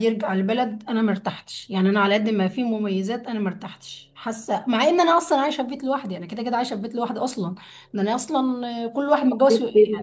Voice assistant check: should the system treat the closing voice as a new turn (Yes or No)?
No